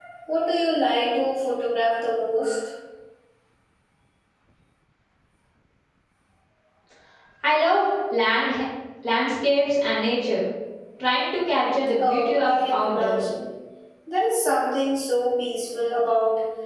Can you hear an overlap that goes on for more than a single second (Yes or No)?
Yes